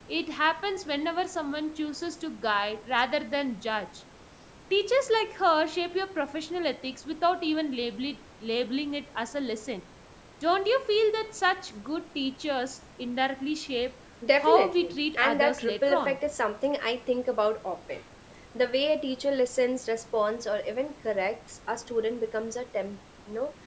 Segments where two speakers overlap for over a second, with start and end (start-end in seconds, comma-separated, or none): 14.4-16.2